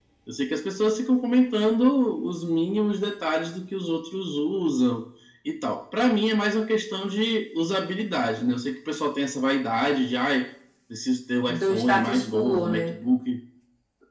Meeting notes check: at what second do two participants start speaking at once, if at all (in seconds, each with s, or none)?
11.5 s